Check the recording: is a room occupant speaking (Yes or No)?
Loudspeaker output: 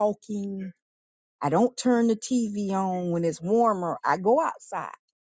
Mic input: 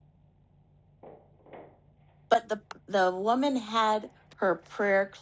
Yes